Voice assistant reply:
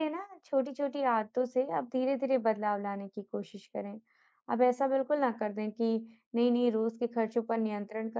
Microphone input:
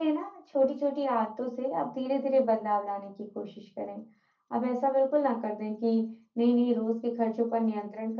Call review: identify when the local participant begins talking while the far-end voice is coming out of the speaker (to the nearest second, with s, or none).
none